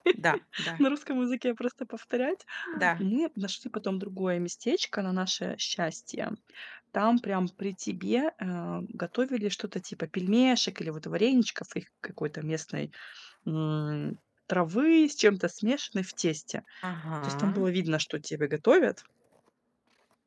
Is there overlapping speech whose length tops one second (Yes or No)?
No